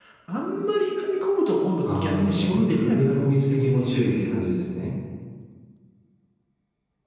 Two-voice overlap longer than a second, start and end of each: 1.8-4.0

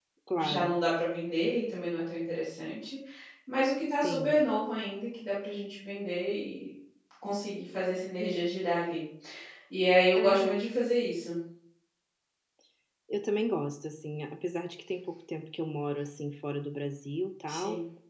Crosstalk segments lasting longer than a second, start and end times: none

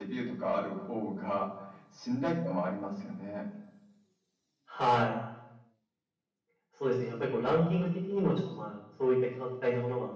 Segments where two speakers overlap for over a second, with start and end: none

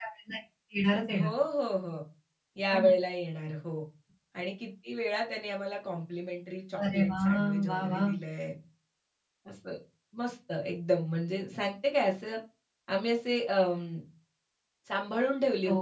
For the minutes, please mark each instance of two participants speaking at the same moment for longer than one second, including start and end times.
6.9-8.1

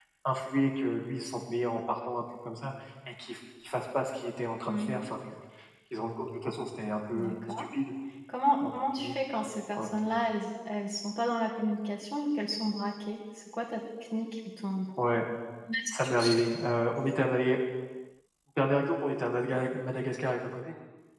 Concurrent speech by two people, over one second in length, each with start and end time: none

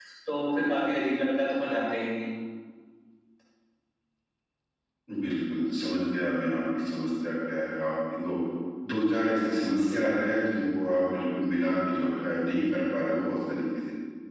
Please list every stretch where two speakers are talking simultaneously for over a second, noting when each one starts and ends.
none

